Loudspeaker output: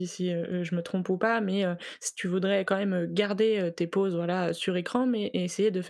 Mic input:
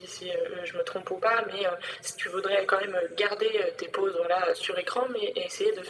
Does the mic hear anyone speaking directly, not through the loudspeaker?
No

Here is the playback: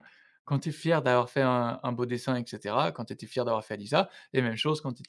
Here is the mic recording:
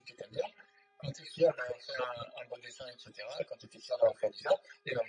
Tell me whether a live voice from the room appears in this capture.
No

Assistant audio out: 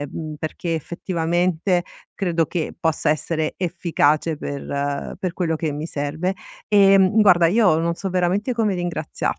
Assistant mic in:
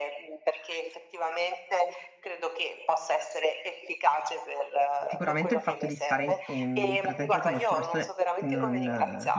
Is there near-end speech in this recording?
Yes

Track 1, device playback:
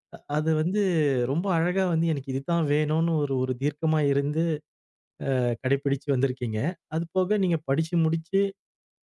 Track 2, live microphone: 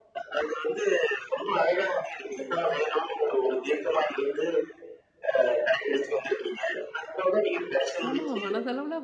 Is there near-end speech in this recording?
Yes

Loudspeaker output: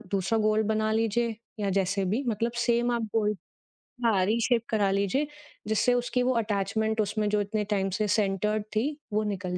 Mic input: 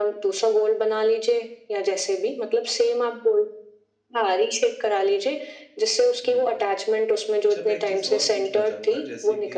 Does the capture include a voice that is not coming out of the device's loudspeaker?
Yes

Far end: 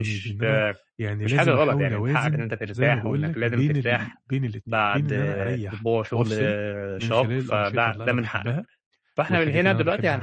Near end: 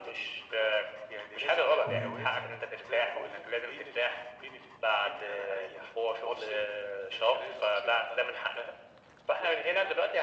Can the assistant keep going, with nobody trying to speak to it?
No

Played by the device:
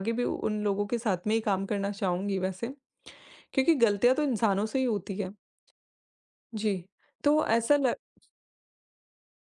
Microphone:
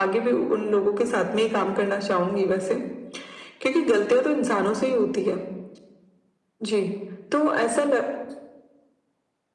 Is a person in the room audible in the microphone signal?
No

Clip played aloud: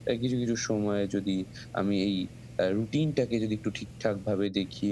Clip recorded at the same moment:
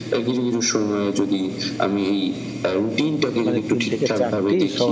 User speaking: Yes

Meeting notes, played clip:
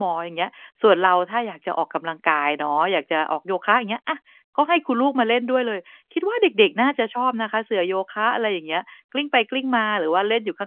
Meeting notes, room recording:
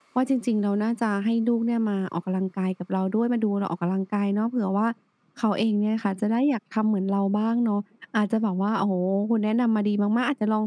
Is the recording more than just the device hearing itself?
Yes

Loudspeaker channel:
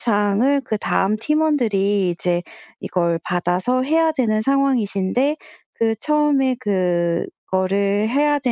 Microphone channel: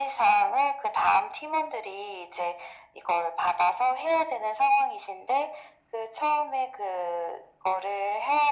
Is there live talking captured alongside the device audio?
No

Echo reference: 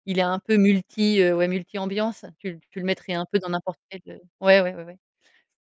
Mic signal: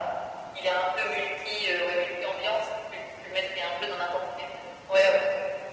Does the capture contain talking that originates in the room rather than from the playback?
No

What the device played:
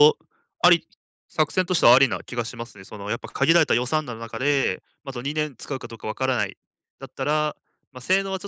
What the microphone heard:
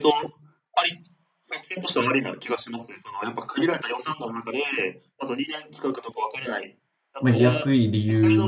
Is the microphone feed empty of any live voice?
No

